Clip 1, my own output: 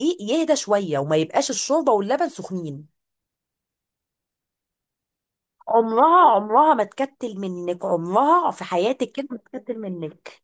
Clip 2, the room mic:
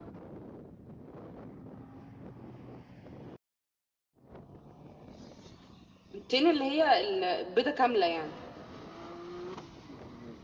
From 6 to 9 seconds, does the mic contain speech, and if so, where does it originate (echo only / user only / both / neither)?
user only